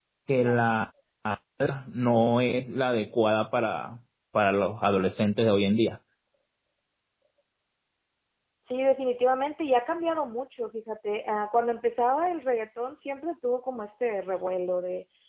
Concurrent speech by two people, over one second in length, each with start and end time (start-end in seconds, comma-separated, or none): none